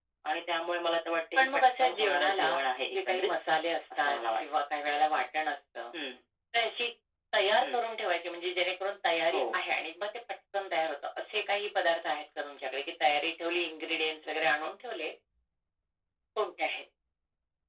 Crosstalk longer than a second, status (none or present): present